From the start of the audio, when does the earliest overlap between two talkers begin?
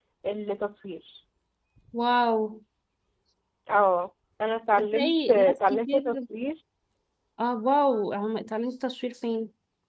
4.8 s

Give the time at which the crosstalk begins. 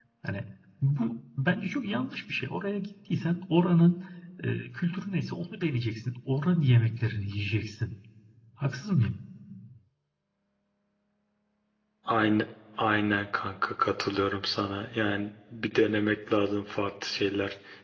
none

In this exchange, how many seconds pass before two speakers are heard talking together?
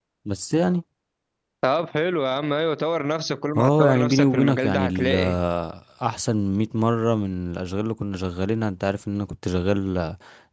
3.6 s

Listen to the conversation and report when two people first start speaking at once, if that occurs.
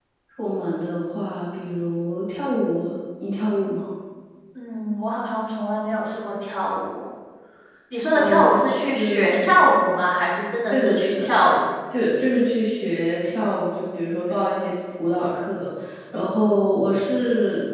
8.1 s

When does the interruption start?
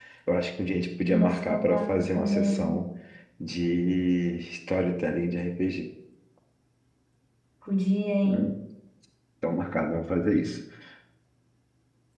1.1 s

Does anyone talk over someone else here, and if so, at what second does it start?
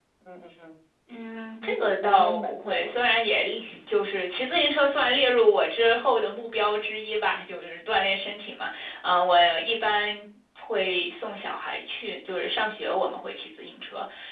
1.6 s

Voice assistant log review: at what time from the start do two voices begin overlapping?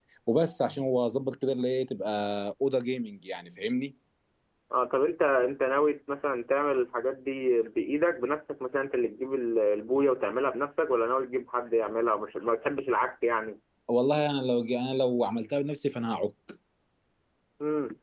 none

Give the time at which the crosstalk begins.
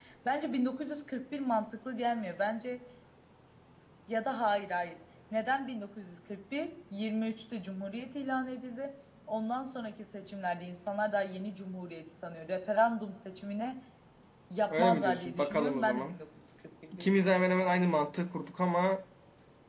14.7 s

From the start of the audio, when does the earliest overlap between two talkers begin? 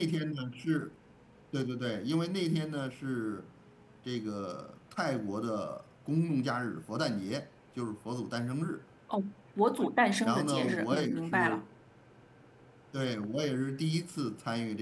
10.2 s

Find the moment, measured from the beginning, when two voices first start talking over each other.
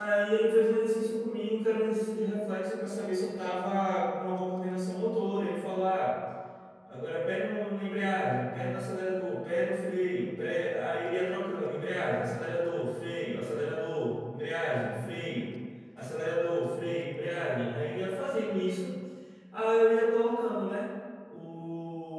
none

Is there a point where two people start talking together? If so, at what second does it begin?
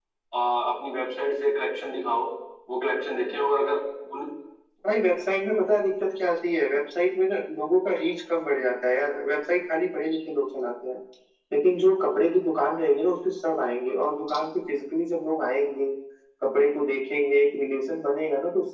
none

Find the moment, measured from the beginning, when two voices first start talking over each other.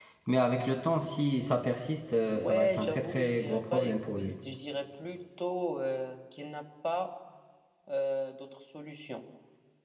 2.3 s

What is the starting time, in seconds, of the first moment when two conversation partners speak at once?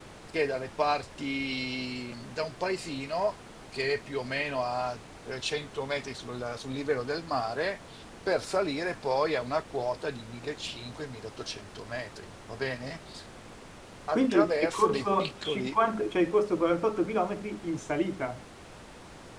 14.1 s

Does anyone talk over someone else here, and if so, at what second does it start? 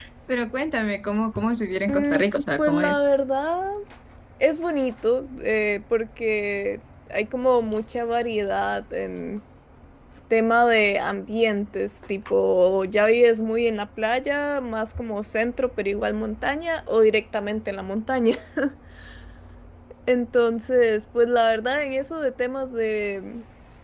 1.9 s

